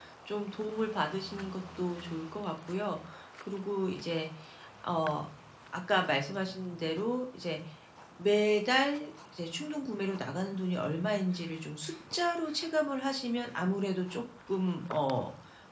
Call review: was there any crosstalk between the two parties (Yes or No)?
No